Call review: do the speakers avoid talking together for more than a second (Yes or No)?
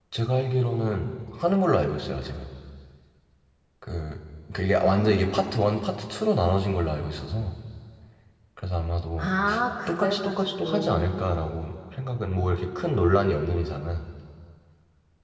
No